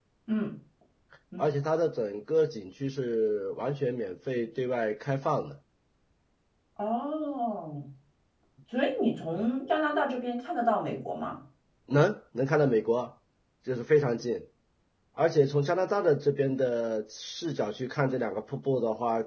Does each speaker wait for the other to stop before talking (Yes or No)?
Yes